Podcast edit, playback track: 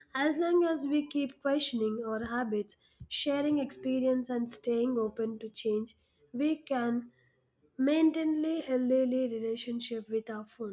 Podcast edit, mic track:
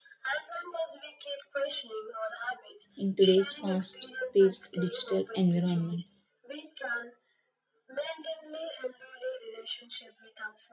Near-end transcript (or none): in today's fast paced digital environment.